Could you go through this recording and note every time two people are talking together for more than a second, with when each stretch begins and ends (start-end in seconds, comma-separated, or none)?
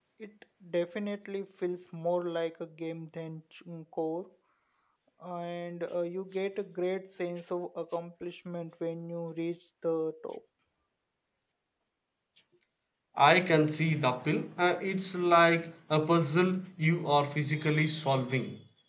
none